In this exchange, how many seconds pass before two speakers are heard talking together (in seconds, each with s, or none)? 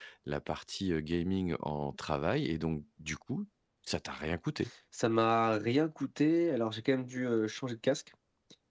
none